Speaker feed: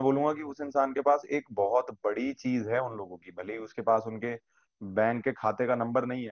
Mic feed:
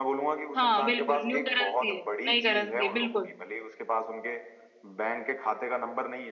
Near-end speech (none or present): present